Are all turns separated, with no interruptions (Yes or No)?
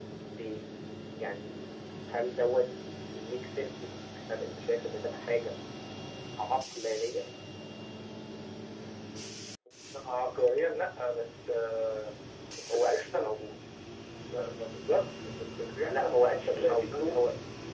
No